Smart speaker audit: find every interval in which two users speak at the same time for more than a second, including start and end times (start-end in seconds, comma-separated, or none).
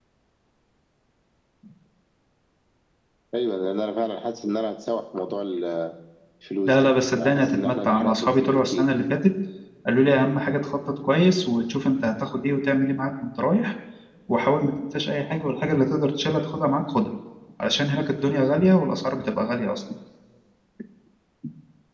6.6-9.0